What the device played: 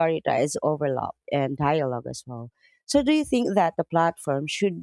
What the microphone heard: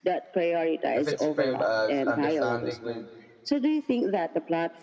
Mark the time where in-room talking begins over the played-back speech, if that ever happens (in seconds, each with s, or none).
0.9 s